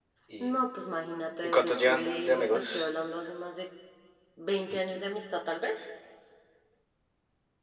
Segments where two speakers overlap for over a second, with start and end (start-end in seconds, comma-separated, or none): 1.4-2.9